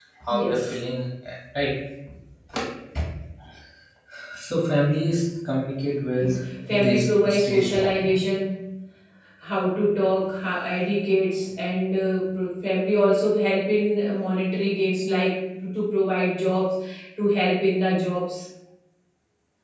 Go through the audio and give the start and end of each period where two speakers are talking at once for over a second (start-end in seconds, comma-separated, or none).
6.8-8.2